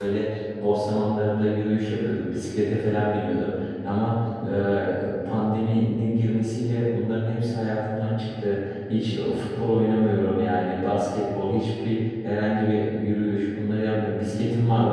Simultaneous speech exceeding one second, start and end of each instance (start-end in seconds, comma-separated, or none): none